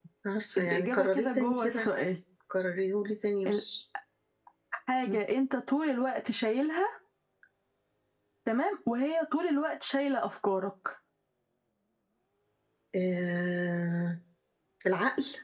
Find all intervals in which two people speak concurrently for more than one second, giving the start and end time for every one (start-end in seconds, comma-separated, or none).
0.6-1.9